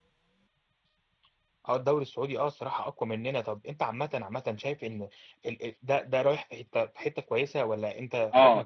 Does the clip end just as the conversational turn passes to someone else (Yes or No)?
Yes